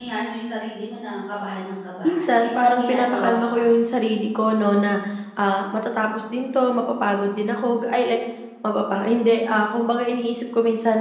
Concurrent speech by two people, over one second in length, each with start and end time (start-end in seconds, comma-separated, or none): 2.0-3.7